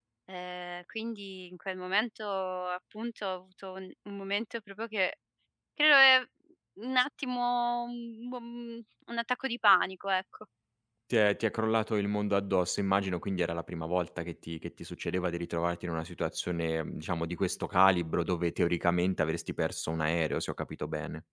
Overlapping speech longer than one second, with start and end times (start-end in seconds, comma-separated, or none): none